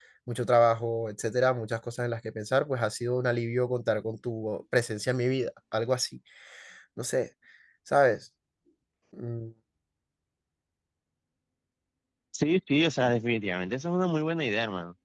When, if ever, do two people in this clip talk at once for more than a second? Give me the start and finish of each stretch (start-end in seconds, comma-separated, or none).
none